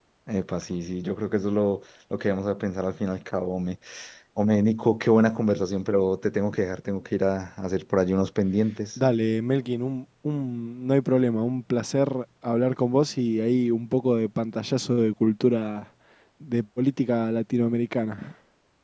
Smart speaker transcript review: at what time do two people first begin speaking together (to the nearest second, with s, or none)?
none